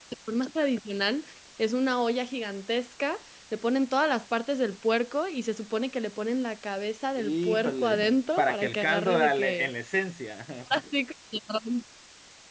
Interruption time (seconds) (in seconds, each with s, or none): 7.2 s